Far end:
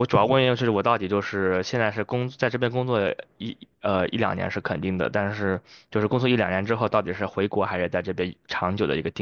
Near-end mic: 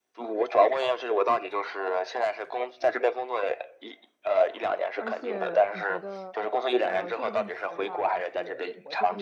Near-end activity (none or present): present